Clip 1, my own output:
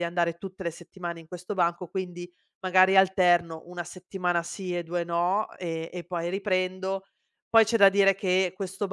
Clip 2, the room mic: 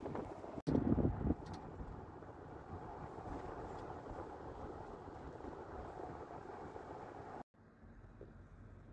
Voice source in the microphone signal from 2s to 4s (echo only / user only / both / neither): neither